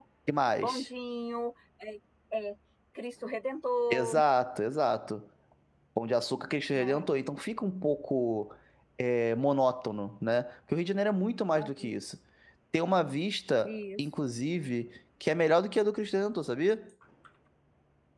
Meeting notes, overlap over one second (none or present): none